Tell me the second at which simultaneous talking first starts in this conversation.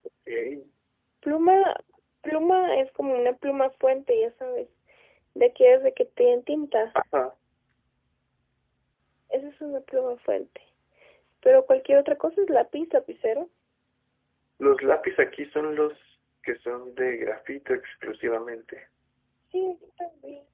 none

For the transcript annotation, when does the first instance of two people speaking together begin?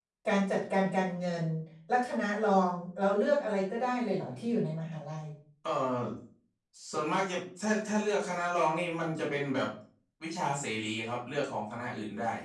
none

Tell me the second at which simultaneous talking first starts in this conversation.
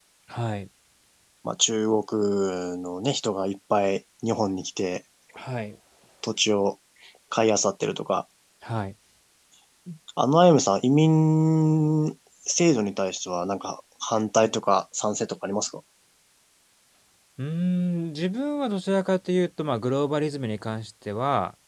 none

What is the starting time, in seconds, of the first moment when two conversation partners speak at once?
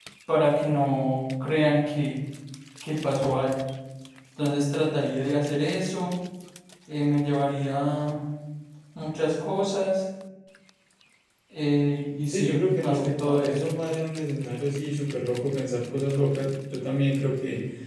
12.3 s

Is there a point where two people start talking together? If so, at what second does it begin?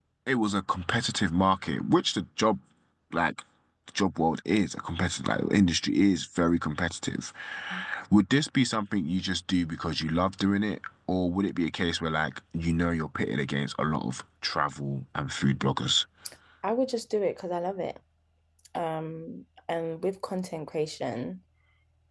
none

